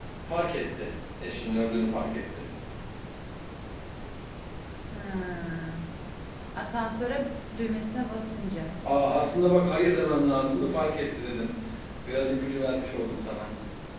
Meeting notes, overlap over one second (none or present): none